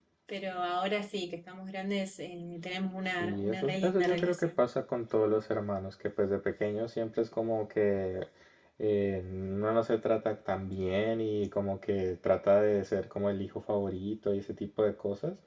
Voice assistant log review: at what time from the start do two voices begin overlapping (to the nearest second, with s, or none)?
3 s